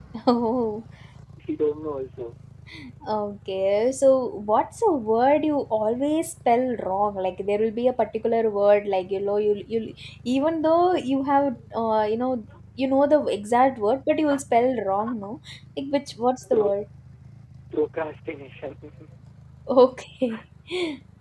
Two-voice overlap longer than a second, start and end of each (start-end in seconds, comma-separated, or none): none